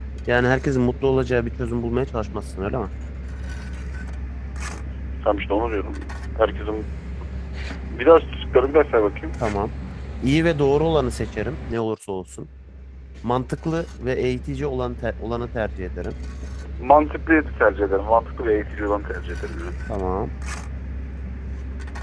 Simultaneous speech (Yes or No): No